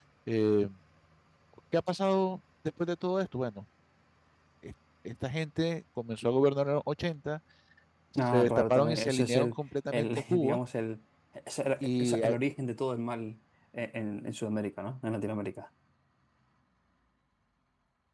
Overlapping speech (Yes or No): Yes